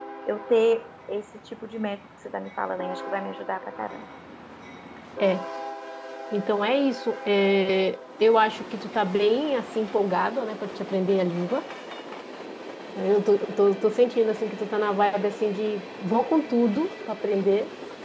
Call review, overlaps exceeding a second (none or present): none